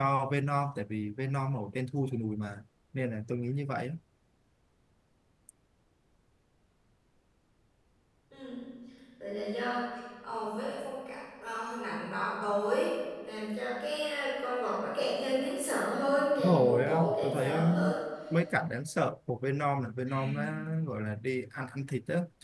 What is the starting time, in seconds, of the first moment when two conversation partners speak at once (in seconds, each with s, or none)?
16.4 s